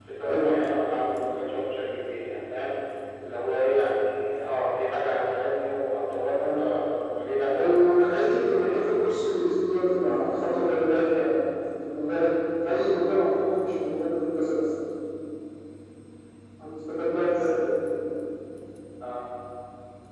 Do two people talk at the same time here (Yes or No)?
Yes